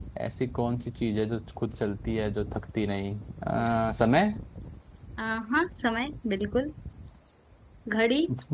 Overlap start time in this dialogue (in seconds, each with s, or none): none